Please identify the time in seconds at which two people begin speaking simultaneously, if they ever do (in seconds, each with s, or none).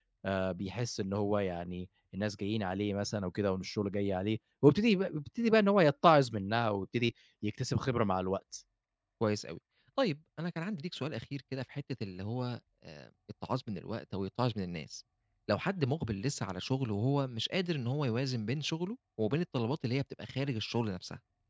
none